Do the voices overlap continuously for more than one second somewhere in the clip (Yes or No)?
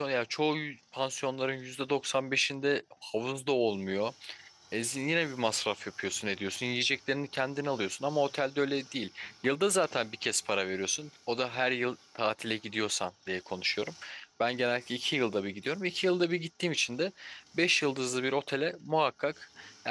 No